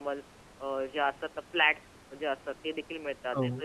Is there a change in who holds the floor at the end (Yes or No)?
No